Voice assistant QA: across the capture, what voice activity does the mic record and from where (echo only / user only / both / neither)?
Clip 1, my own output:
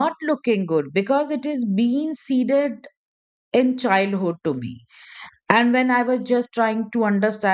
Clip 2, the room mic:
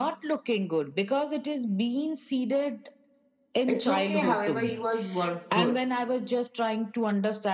both